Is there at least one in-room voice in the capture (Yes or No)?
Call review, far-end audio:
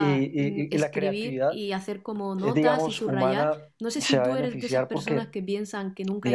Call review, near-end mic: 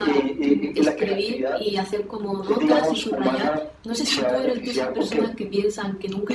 No